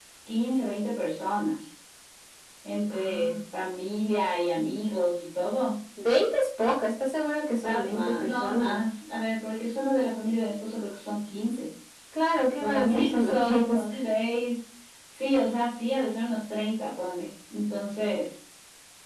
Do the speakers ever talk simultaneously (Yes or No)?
Yes